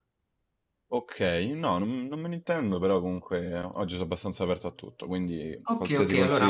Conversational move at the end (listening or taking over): taking over